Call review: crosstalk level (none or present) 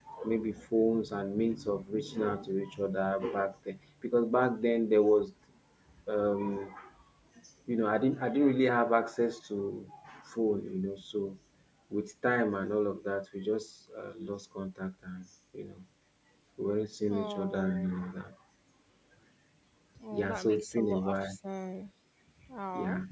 present